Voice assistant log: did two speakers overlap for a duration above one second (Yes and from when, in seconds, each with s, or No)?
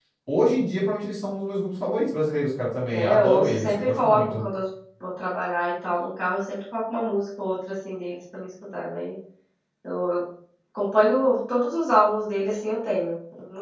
Yes, from 2.9 s